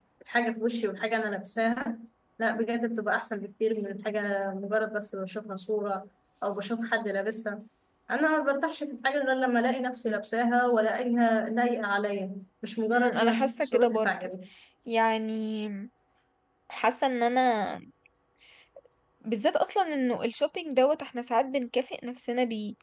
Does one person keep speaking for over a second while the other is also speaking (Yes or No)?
Yes